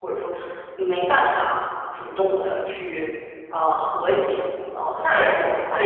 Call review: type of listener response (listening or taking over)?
taking over